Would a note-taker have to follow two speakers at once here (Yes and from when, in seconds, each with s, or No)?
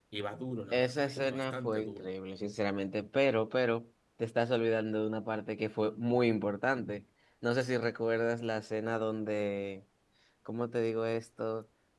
Yes, from 0.7 s